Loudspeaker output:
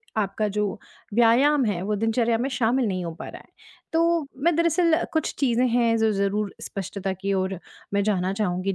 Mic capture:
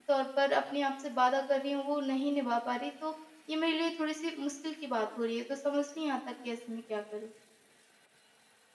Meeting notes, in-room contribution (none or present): present